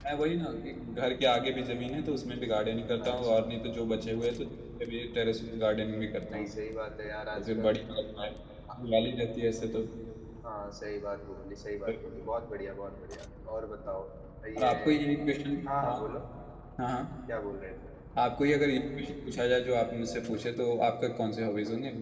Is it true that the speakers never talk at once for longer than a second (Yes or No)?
Yes